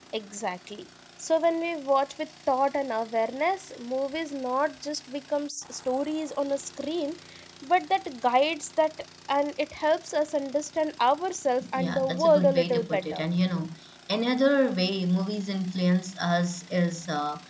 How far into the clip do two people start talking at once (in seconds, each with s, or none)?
11.6 s